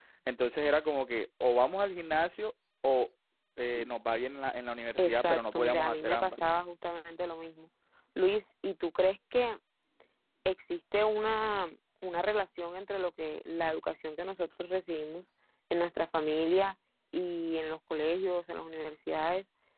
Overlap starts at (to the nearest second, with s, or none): 5 s